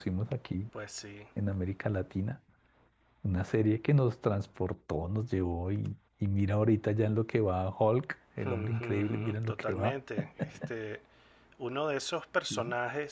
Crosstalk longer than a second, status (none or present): present